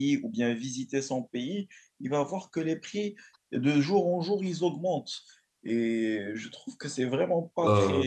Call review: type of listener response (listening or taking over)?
listening